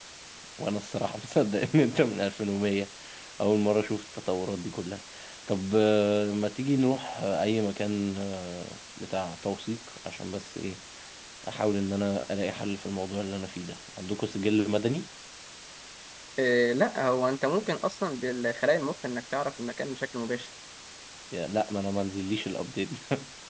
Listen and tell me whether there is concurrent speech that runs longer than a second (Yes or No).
No